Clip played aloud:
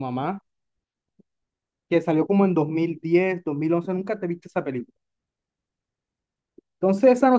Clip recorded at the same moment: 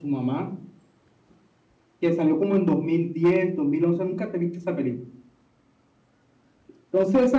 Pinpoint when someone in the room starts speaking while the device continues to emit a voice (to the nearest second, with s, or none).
none